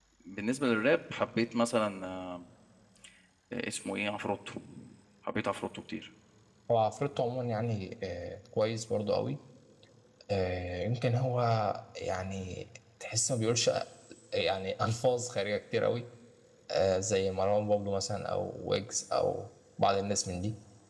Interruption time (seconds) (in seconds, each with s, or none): none